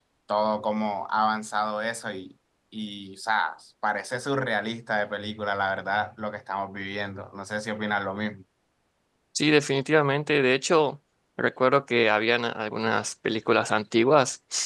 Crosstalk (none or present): none